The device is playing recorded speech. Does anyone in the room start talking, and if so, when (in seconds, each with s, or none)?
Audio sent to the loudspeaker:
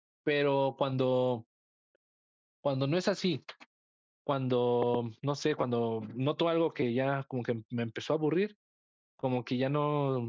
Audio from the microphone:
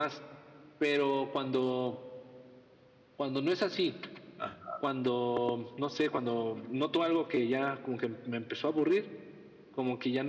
4.3 s